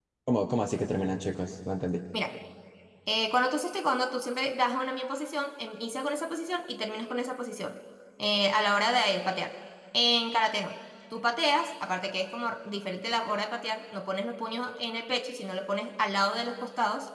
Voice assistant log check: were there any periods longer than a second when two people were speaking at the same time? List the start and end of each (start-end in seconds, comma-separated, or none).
none